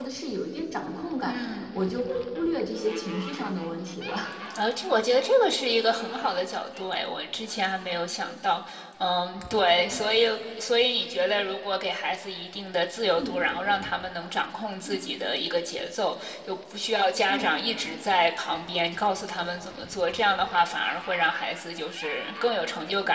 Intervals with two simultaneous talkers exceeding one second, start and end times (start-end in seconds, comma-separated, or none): none